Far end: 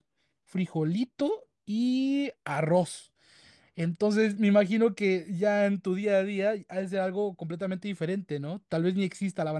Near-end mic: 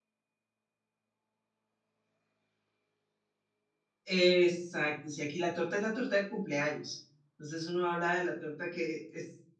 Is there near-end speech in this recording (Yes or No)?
Yes